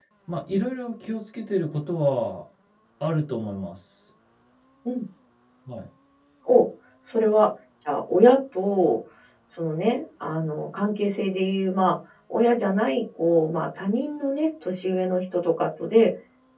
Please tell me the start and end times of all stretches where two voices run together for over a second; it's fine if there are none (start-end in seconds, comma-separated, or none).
none